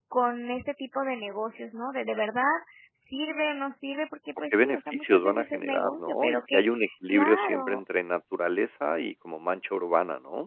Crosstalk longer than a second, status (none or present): present